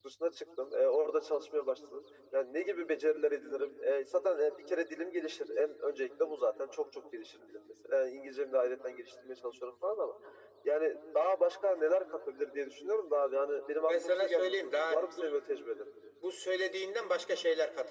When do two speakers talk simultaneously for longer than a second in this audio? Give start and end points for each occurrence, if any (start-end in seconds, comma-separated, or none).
13.9-15.2